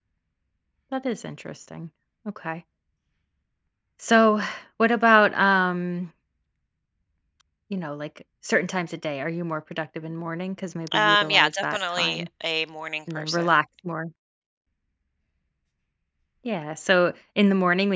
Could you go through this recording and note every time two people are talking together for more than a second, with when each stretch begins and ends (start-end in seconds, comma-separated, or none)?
10.9-12.3